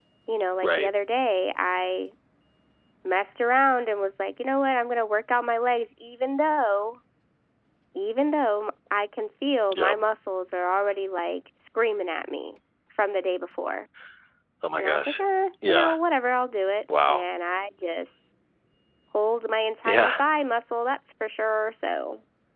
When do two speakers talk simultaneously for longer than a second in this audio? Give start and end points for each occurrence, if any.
none

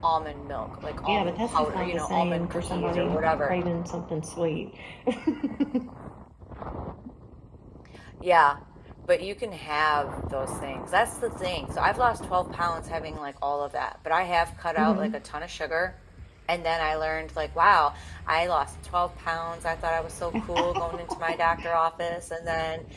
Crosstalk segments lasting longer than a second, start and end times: 1.1-3.5

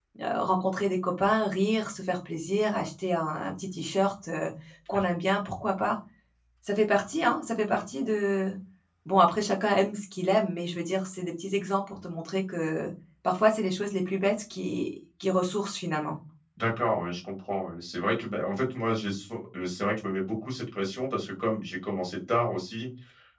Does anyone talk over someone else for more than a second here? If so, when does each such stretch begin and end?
none

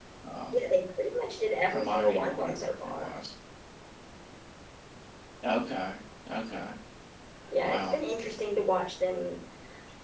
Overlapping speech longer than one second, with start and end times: 1.7-3.1

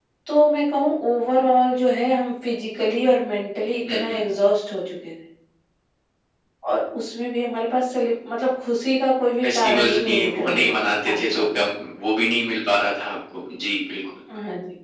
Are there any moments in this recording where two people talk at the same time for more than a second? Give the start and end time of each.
9.4-10.7

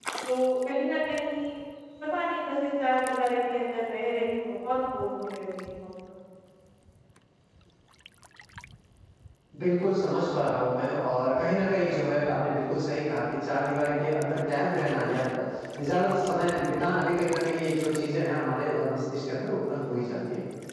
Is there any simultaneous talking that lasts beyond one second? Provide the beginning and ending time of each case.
none

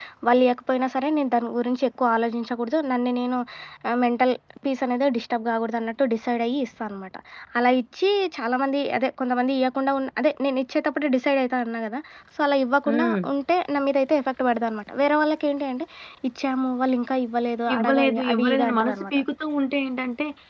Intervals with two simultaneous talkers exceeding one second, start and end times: 17.7-19.2

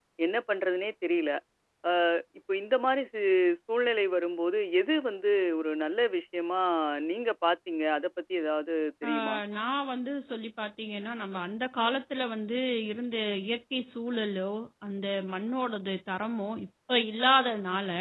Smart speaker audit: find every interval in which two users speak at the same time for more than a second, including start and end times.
none

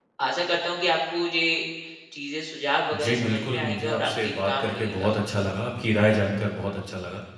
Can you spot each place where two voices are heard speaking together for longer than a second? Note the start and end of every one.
2.9-5.1

